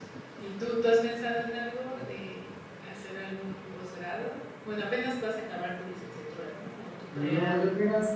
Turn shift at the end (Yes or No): Yes